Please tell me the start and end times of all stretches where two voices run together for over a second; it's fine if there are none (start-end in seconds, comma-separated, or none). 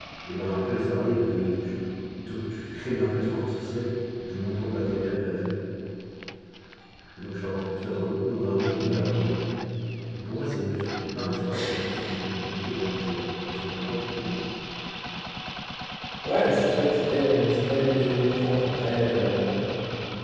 none